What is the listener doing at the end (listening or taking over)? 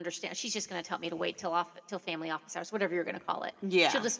listening